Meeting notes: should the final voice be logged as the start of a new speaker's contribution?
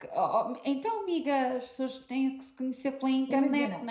Yes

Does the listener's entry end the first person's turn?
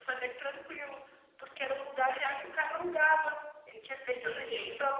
No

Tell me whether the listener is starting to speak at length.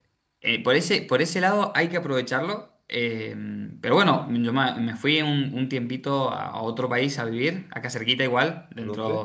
No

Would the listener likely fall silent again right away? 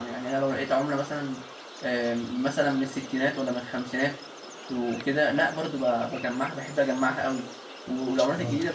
Yes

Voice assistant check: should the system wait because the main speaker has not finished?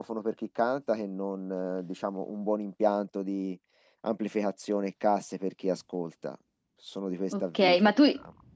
No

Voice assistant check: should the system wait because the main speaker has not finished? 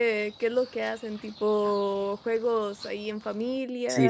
No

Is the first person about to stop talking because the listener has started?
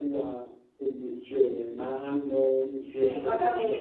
Yes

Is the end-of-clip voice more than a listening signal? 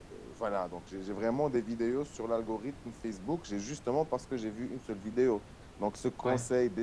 No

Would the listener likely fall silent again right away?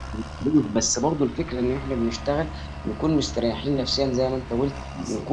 Yes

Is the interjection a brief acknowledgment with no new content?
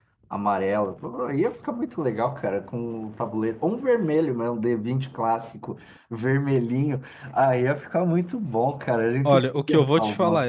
No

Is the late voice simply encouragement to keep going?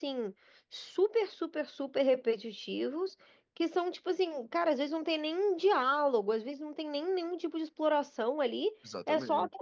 Yes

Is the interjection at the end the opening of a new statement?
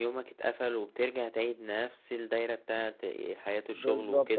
Yes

